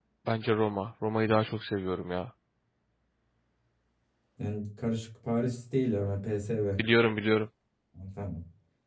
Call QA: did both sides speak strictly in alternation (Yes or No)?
Yes